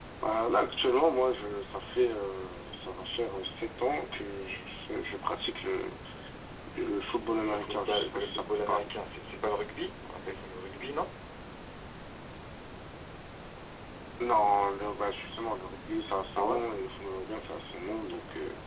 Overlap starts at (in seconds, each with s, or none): 7.5 s